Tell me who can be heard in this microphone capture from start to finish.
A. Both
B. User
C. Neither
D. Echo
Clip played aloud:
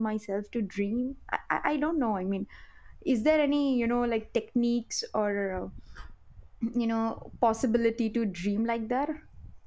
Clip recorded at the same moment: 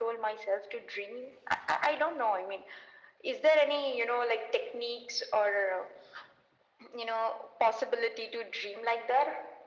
D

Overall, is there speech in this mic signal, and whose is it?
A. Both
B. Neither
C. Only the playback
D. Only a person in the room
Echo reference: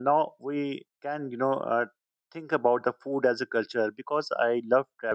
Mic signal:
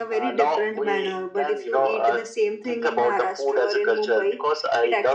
A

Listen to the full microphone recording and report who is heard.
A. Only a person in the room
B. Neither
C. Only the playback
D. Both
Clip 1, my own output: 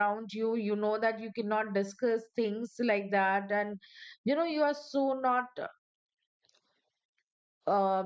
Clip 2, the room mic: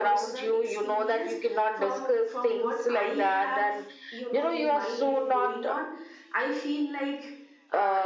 D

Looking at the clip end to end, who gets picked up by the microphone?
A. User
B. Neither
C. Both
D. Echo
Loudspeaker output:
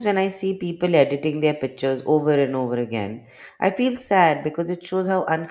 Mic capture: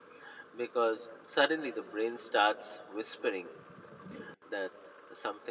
A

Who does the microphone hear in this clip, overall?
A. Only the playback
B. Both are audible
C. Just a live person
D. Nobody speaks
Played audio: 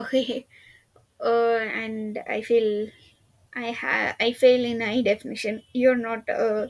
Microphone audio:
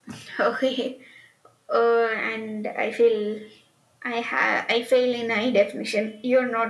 A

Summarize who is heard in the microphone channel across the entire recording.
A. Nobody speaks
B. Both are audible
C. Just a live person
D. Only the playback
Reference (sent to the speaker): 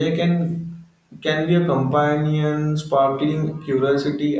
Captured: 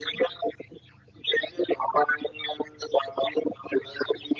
D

